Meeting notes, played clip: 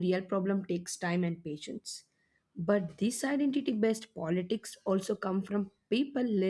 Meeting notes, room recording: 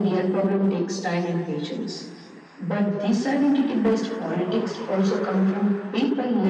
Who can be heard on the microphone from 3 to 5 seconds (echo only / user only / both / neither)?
echo only